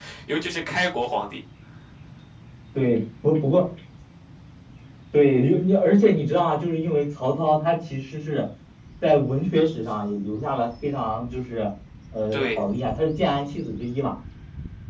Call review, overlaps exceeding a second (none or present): none